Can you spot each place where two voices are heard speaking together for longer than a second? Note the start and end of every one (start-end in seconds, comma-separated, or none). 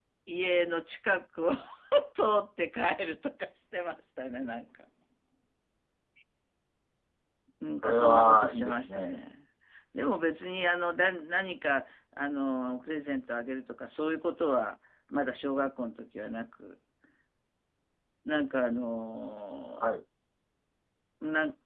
7.8-9.2